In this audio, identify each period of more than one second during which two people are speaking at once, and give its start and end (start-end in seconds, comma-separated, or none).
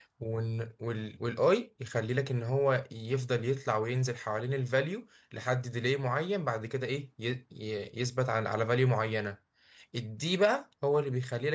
none